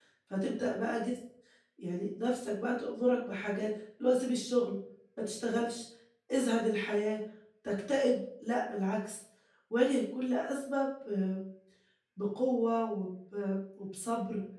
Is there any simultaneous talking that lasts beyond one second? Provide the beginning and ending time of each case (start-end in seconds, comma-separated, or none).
none